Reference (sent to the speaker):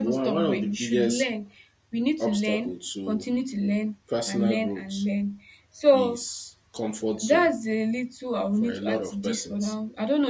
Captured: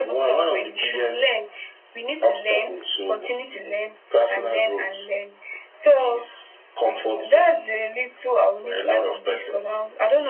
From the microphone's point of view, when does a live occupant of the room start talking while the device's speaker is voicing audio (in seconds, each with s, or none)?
none